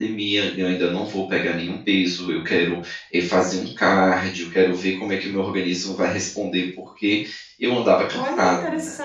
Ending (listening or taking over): taking over